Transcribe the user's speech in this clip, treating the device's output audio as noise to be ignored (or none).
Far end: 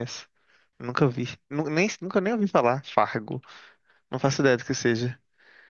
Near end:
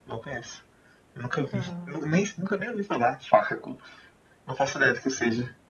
Aham.